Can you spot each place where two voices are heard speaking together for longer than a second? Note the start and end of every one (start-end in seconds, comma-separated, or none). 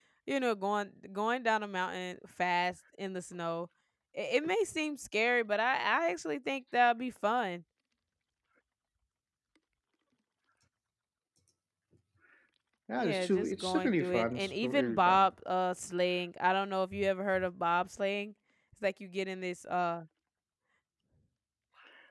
13.0-15.2